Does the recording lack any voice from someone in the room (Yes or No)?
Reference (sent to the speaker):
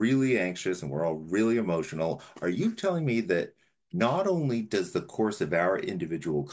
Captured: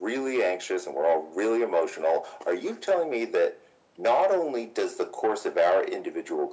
Yes